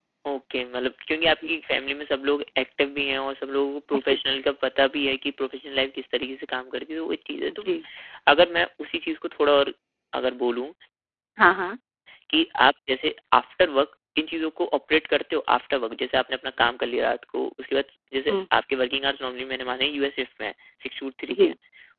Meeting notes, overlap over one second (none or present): none